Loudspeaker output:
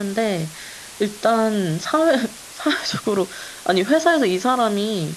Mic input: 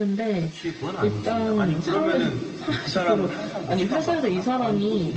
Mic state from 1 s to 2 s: both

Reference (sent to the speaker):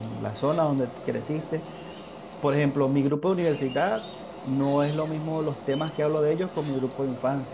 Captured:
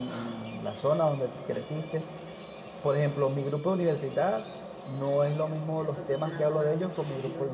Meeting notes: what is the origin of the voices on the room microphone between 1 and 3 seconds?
echo only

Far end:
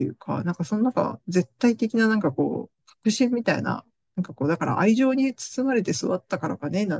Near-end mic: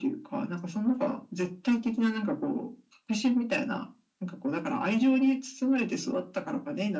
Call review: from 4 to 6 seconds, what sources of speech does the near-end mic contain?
echo only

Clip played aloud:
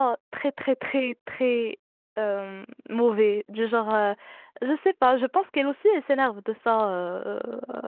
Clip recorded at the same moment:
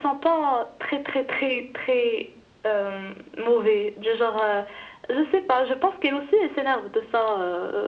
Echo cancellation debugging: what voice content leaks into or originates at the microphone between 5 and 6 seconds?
echo only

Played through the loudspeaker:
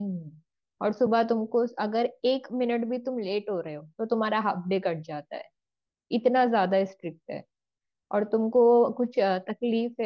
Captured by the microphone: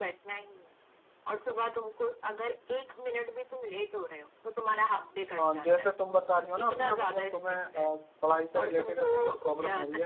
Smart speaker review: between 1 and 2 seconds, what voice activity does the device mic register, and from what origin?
echo only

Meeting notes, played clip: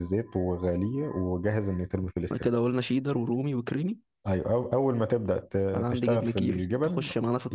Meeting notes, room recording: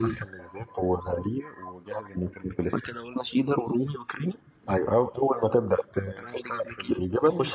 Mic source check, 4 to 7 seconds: echo only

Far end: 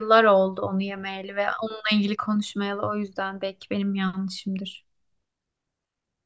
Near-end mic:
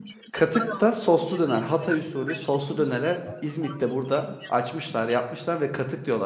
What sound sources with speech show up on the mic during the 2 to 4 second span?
both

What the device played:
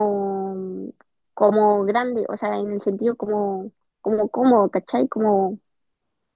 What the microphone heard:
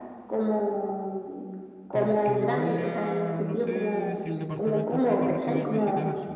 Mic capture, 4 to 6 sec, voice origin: both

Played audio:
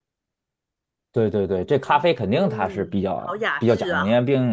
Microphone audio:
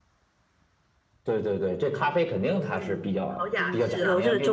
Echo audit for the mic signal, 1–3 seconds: echo only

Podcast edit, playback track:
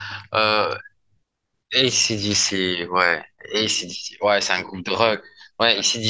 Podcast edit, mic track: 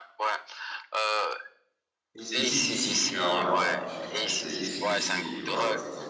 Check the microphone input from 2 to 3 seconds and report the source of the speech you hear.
both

